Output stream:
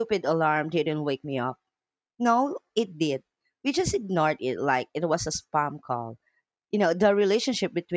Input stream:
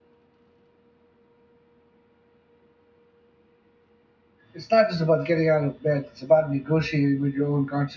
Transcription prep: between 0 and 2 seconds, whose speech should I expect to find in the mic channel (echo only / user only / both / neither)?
neither